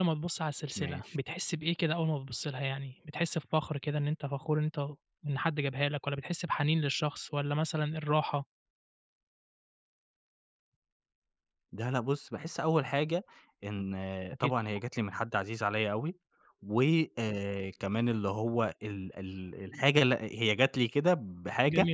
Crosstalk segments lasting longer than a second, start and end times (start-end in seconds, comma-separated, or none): none